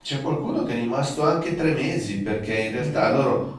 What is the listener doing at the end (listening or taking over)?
listening